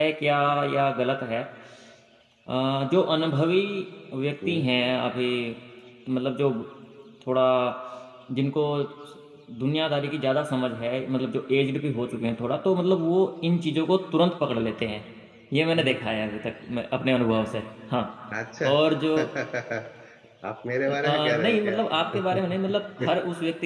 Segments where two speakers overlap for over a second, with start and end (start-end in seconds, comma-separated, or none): 20.9-22.4